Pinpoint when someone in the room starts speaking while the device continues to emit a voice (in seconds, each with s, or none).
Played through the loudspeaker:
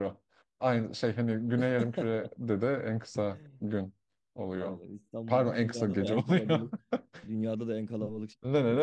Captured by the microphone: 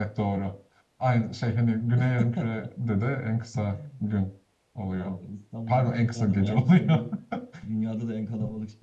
none